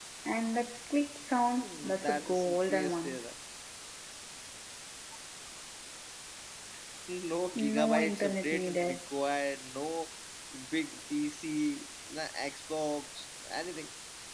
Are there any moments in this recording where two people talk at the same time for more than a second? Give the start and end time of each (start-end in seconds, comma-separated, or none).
1.5-3.2, 7.6-9.0